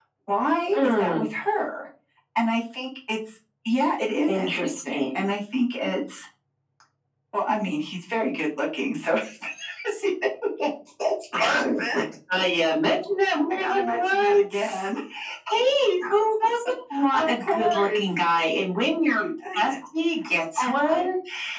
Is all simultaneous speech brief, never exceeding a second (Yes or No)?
No